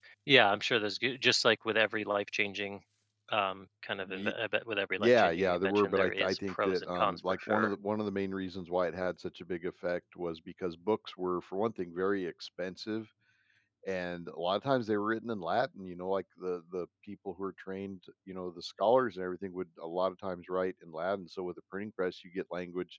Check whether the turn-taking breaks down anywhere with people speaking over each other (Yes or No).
Yes